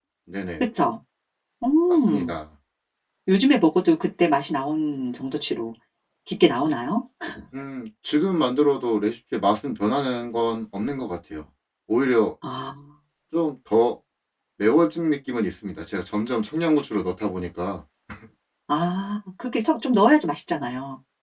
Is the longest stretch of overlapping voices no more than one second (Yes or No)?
Yes